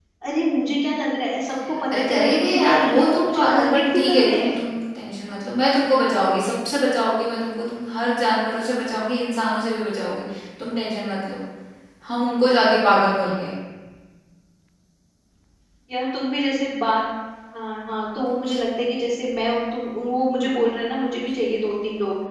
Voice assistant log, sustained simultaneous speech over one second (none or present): present